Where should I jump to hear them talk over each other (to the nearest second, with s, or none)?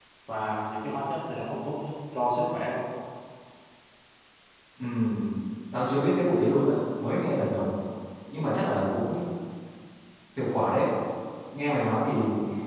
none